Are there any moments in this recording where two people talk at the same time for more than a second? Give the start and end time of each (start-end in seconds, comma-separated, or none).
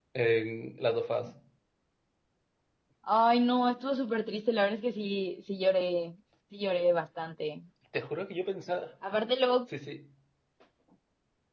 none